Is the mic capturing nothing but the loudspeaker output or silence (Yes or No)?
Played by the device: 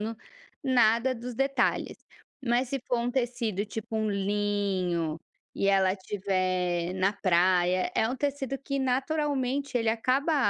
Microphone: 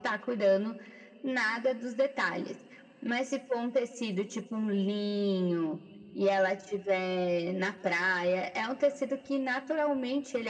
Yes